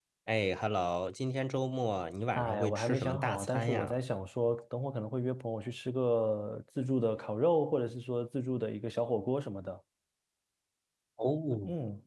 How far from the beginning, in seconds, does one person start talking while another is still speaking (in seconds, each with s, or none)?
2.4 s